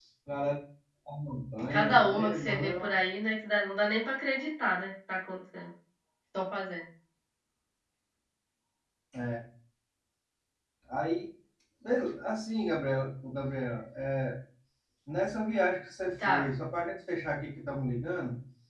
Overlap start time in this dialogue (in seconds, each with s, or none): 1.7 s